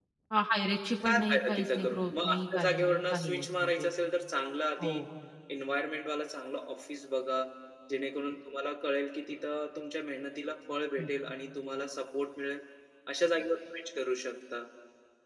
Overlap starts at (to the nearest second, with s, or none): 1 s